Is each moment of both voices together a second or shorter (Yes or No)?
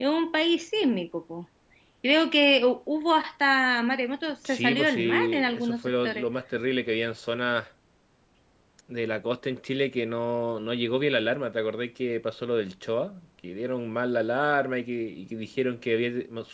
No